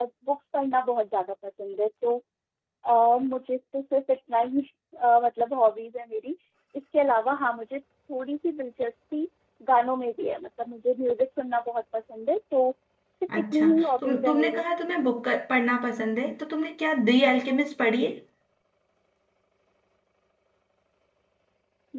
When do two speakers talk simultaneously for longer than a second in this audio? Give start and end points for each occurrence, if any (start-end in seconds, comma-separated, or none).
13.3-14.6